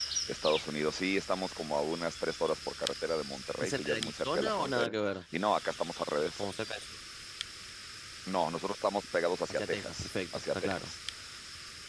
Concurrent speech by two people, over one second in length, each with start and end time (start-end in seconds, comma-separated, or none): 3.6-4.9, 9.5-10.9